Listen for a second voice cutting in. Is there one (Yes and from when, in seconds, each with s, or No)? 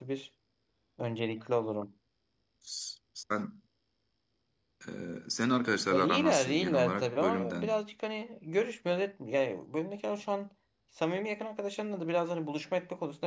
Yes, from 5.9 s